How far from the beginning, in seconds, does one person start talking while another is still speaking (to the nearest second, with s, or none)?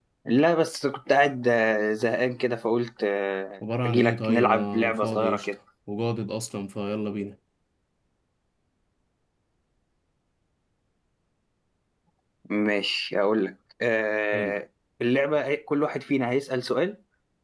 4 s